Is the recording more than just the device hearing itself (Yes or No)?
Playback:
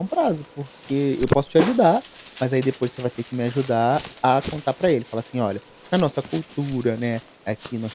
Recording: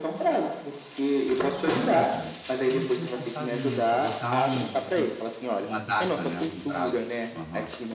Yes